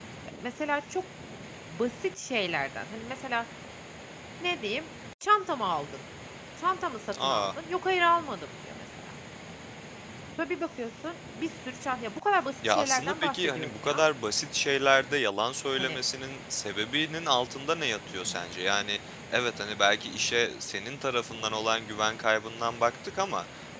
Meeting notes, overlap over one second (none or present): present